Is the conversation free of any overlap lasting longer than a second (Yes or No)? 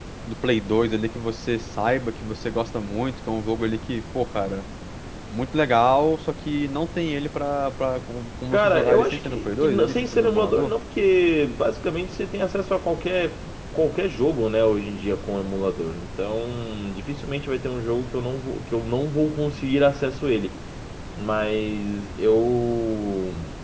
No